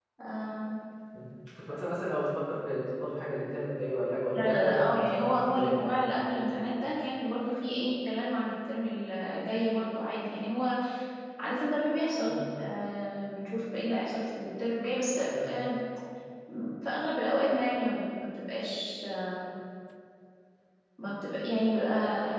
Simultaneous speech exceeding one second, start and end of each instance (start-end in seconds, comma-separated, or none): 4.3-5.9